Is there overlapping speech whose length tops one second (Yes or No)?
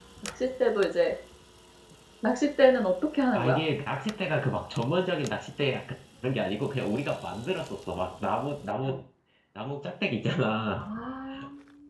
No